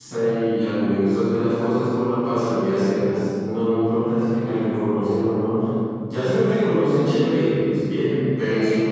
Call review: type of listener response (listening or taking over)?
listening